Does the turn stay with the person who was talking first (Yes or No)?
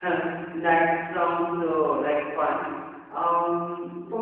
Yes